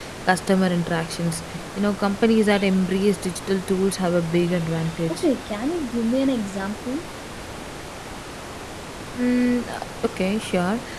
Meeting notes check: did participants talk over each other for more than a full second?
No

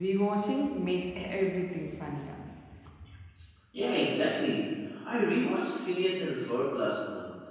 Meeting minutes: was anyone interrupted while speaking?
No

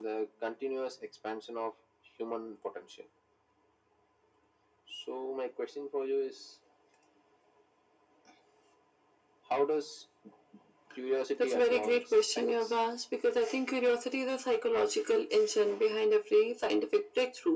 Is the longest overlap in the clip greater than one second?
Yes, from 11.4 s

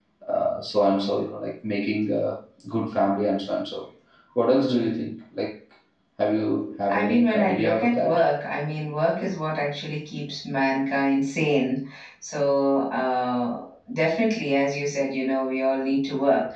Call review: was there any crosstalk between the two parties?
Yes, from 6.9 s

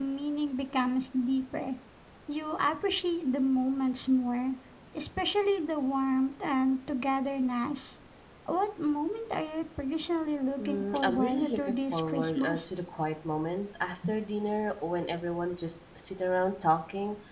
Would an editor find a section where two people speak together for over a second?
Yes, from 10.6 s

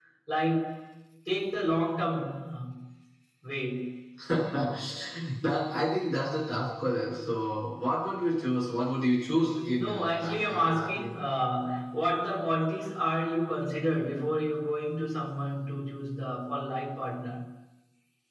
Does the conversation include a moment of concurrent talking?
Yes, from 9.6 s

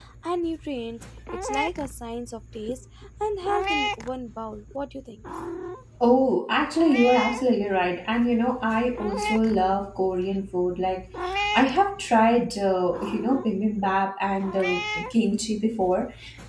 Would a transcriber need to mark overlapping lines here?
No

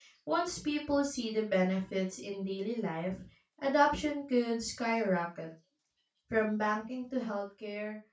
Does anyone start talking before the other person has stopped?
No

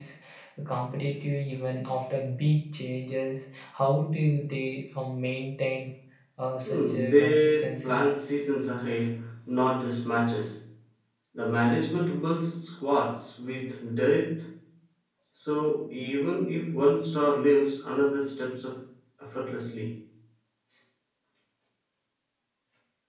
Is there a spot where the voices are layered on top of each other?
Yes, from 6.6 s

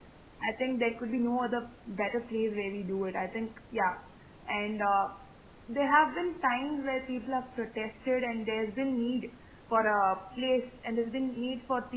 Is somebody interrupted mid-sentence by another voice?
No

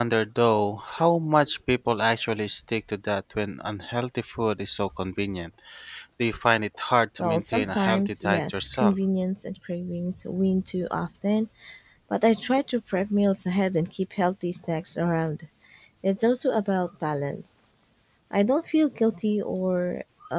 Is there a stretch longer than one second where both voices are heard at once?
Yes, from 7.2 s

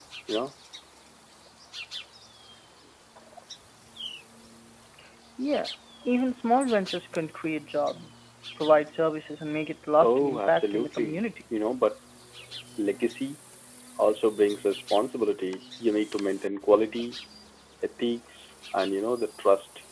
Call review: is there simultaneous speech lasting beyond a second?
Yes, from 10.0 s

